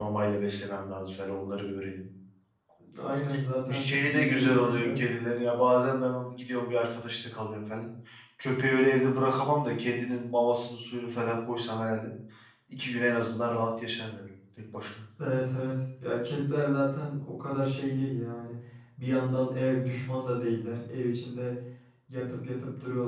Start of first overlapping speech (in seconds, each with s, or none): 3.7 s